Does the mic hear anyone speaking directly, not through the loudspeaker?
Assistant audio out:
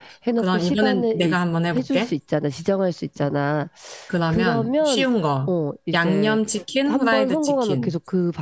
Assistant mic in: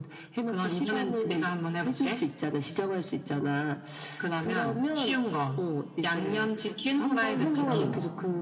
Yes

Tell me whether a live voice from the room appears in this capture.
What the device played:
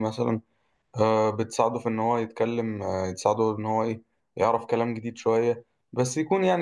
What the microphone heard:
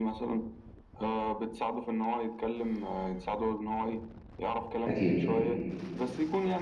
Yes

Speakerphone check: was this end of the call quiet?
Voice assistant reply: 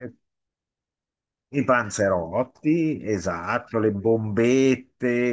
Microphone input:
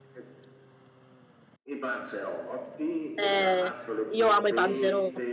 No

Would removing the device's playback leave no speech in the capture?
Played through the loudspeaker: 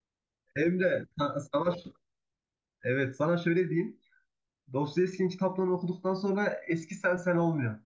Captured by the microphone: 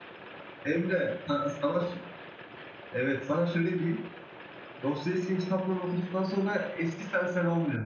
Yes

